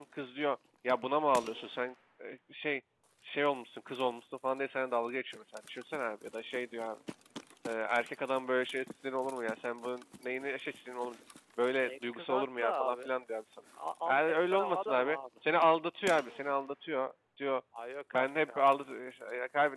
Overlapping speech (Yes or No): Yes